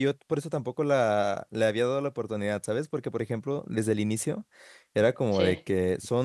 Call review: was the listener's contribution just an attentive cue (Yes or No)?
Yes